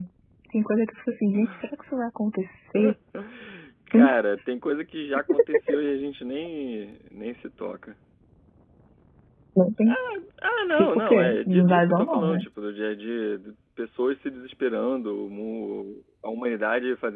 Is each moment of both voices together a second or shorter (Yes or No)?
No